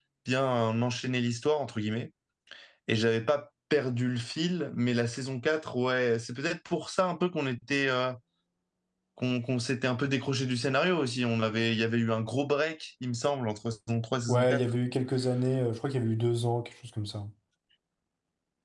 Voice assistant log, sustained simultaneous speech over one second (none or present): none